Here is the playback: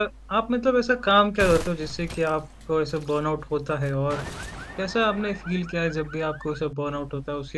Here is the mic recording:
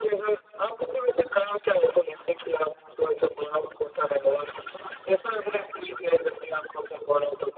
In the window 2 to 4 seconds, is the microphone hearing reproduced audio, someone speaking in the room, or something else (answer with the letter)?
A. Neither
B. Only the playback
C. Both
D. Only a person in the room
B